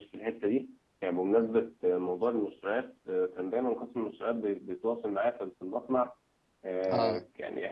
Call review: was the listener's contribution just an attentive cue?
Yes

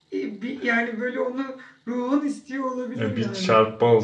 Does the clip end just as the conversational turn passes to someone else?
Yes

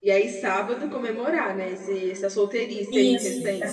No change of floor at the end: No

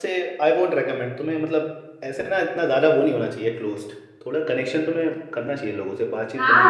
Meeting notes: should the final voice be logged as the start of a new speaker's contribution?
Yes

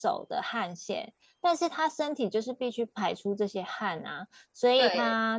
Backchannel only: Yes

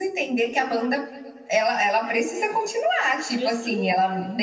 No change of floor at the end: Yes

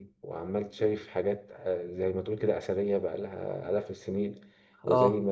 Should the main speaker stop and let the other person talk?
No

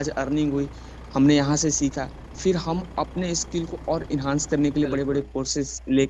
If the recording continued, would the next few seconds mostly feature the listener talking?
No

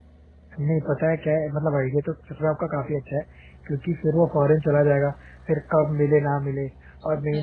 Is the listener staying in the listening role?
Yes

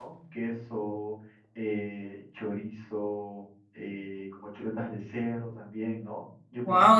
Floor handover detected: Yes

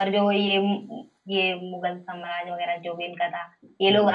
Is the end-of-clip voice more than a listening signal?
No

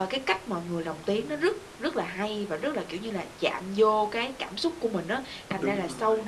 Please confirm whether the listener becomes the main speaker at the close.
No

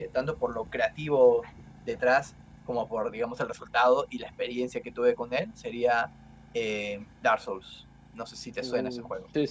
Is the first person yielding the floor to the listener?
Yes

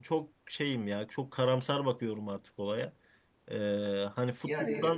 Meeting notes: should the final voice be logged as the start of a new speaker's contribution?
No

